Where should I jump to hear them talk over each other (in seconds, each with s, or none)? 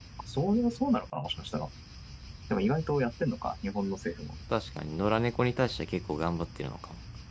none